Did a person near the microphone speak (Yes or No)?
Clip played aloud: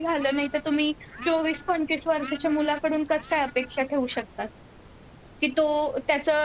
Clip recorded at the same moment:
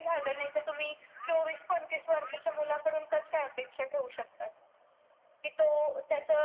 No